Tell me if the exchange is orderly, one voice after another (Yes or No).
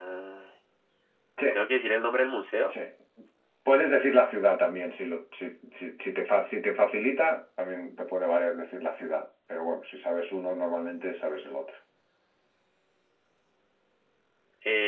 Yes